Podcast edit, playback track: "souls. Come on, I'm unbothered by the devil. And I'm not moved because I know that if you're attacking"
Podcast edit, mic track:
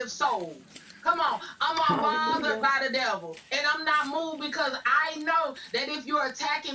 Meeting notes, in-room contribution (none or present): present